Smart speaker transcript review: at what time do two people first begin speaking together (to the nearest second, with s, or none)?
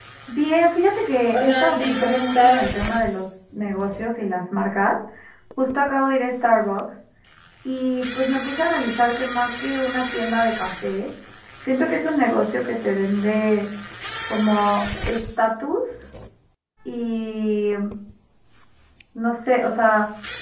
1 s